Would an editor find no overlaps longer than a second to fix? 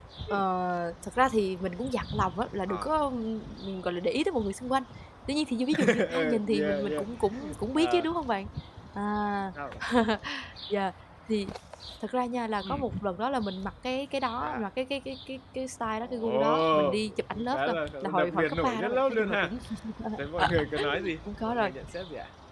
No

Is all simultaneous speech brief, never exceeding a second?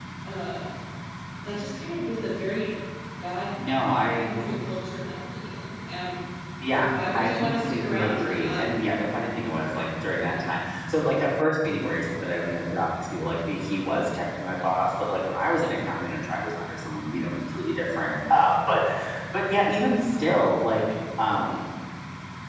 No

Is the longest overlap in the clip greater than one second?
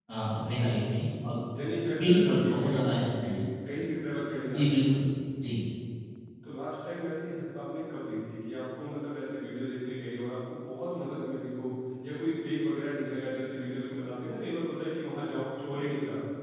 Yes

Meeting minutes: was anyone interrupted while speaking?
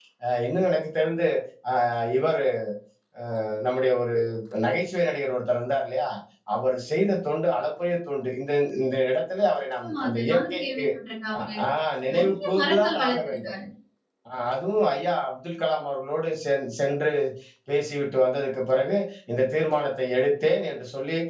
Yes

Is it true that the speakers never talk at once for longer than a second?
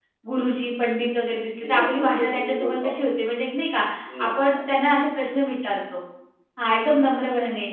No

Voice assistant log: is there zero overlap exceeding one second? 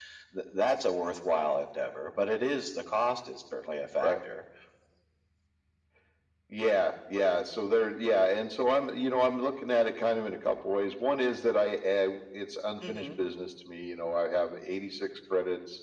Yes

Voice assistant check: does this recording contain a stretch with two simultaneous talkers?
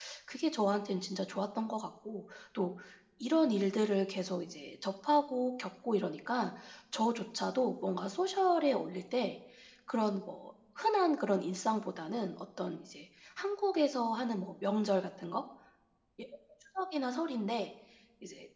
No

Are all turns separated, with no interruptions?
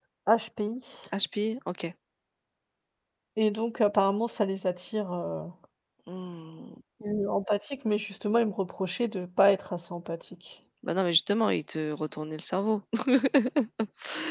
Yes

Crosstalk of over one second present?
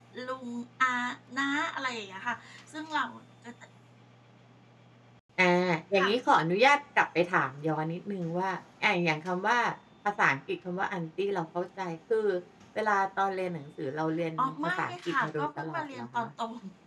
Yes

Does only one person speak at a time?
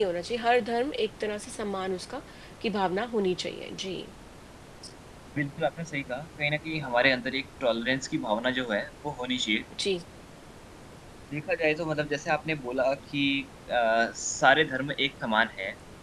Yes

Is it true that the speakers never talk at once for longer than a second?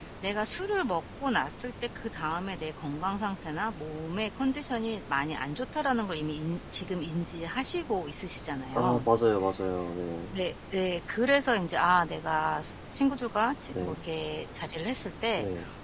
Yes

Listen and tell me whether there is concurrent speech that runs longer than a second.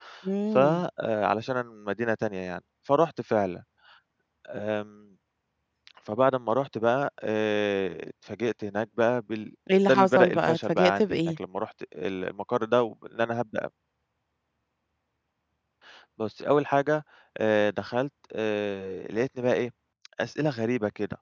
Yes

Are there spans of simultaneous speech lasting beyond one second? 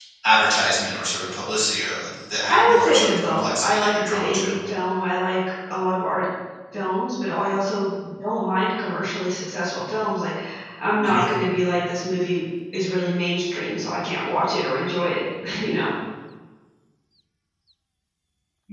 Yes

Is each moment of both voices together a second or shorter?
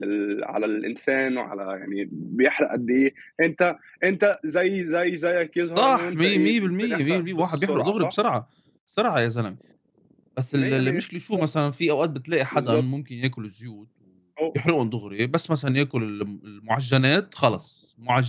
No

